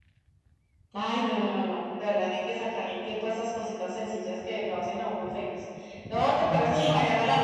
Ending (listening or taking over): listening